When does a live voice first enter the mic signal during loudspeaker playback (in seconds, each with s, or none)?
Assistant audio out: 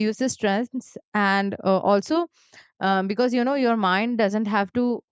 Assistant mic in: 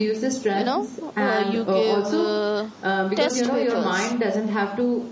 0.5 s